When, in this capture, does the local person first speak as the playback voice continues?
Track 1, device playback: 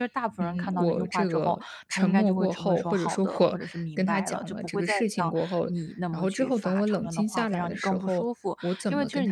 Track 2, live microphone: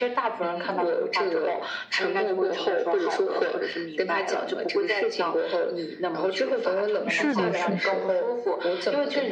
7.1 s

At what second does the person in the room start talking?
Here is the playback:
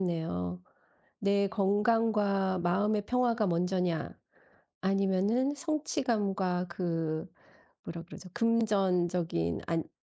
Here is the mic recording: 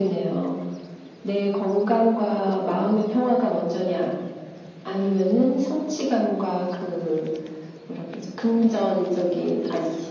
none

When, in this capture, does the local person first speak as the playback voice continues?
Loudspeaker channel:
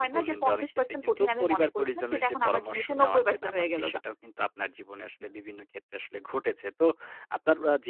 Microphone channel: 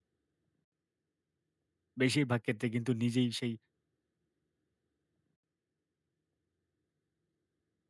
2.0 s

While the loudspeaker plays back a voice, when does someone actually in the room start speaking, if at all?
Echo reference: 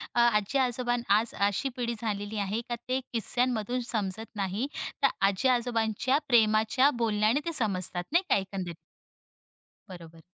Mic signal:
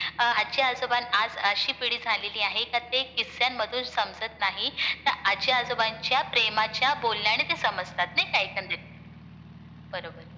none

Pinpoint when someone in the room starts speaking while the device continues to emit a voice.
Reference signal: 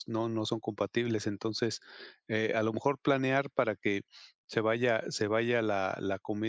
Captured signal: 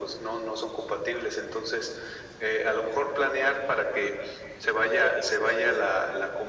none

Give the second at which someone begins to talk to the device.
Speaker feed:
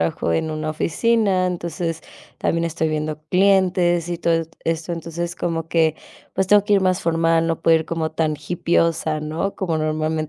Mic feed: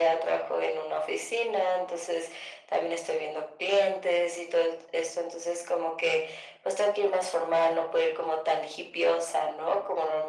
none

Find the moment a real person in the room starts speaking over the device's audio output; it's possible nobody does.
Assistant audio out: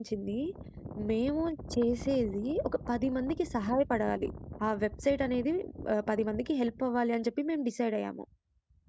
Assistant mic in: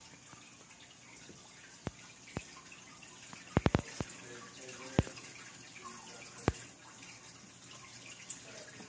none

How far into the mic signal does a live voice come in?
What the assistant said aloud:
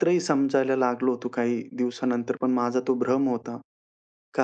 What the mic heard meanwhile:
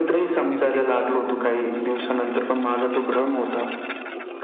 0.6 s

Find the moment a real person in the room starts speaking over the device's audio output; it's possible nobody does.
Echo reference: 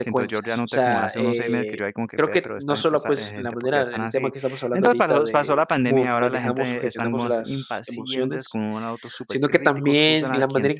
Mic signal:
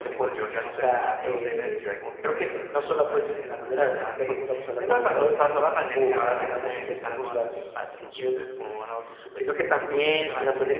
0.4 s

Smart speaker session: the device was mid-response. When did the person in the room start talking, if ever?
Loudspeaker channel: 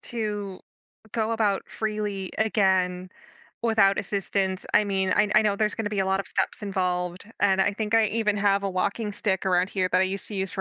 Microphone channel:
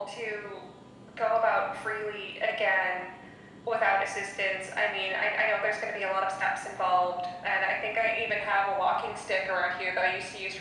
none

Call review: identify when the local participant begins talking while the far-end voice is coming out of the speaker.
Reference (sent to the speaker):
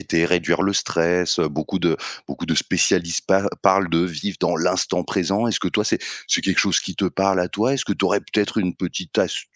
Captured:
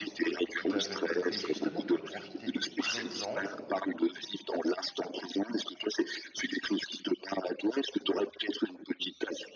0.6 s

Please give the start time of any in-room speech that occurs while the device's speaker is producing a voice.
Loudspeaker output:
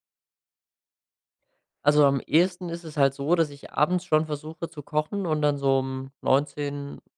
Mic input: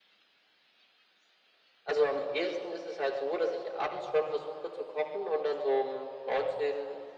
none

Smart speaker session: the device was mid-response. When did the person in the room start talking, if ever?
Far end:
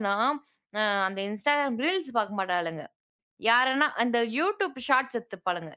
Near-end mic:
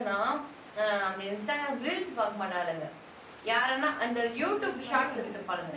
4.4 s

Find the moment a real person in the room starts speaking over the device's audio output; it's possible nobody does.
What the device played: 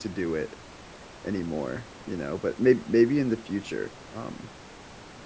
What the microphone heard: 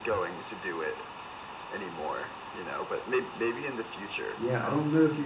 4.4 s

